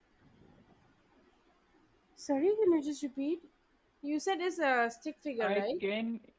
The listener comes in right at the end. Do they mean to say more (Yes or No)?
Yes